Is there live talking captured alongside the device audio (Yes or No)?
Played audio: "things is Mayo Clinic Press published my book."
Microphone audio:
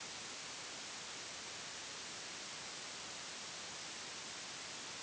No